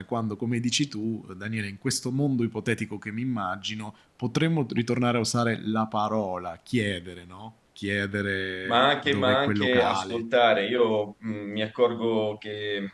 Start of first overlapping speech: 8.6 s

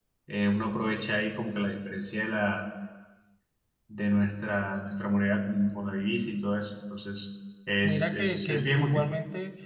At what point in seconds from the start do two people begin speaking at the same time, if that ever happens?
7.8 s

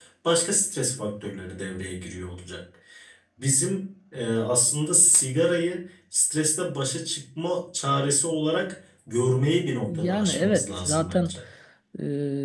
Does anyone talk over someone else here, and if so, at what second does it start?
9.9 s

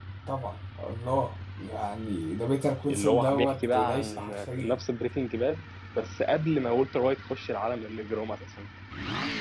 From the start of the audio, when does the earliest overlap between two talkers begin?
2.8 s

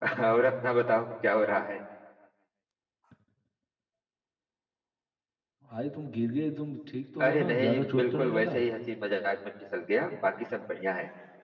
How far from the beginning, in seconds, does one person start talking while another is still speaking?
7.2 s

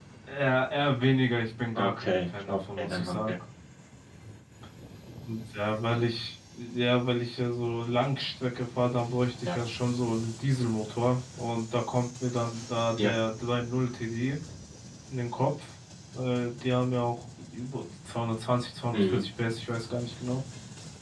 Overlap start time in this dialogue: 1.8 s

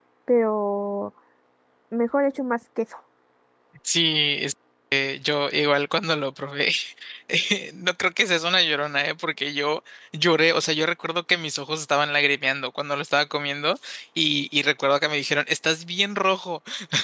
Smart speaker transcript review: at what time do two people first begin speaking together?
none

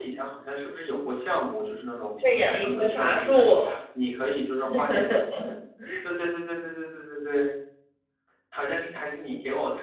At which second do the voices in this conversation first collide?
2.2 s

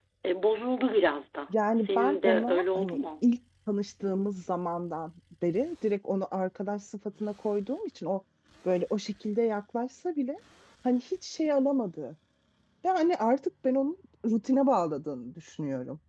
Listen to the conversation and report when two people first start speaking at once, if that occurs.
1.8 s

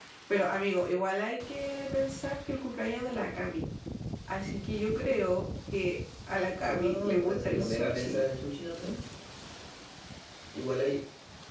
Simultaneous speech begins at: 6.7 s

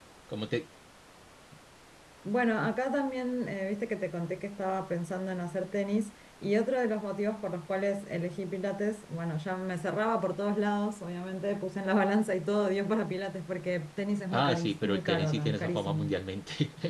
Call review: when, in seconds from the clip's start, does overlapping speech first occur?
14.3 s

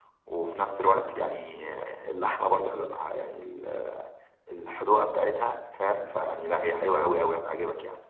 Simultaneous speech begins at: none

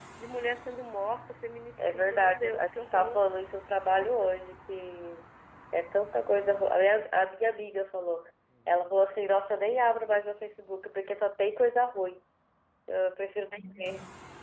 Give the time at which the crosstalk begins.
1.8 s

